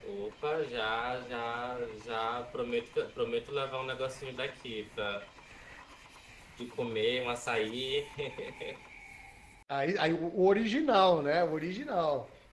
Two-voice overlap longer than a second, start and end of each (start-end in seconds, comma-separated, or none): none